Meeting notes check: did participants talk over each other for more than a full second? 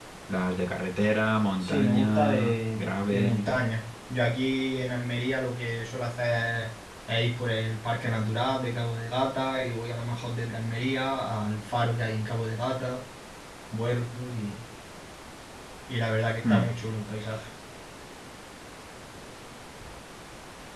Yes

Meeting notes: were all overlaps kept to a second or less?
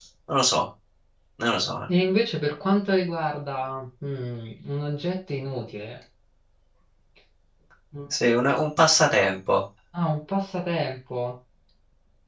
Yes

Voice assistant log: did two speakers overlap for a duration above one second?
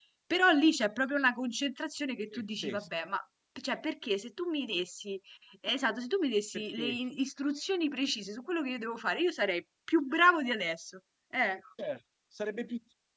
No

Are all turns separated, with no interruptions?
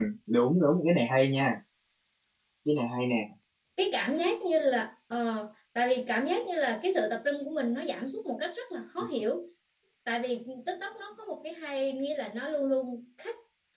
Yes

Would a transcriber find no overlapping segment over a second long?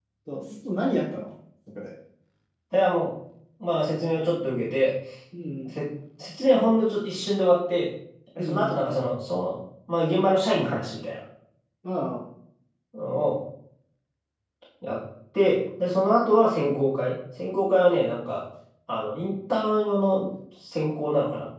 Yes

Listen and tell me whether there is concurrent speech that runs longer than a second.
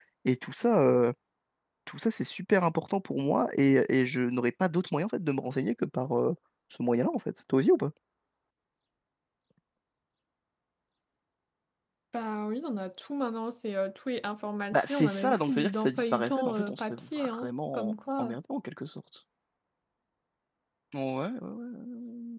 Yes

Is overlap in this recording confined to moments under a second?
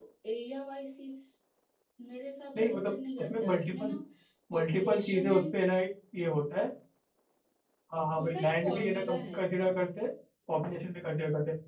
No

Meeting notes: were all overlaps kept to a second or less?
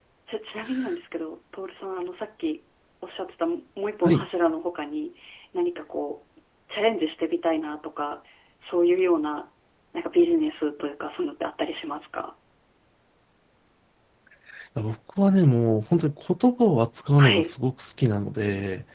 Yes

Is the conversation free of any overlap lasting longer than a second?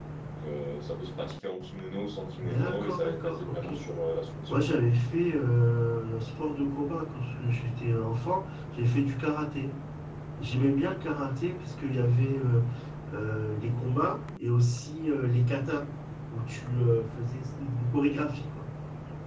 No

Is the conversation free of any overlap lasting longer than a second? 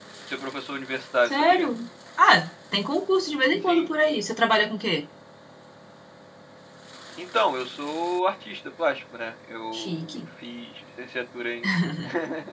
Yes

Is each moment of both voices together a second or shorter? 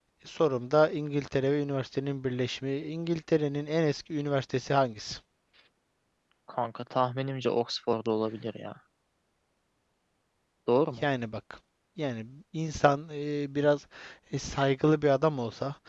Yes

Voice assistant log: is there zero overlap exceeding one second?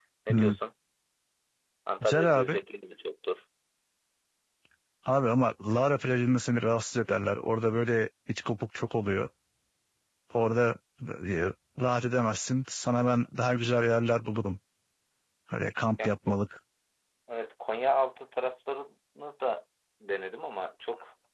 Yes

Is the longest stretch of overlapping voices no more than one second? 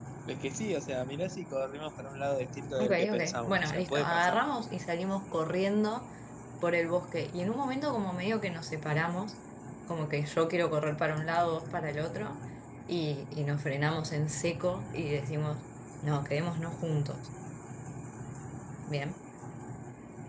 No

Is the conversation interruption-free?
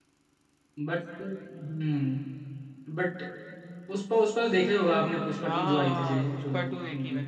No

